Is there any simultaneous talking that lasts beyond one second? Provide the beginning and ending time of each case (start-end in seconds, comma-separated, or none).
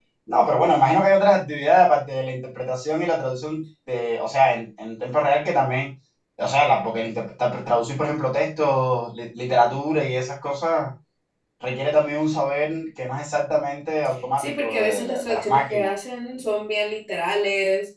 14.4-15.9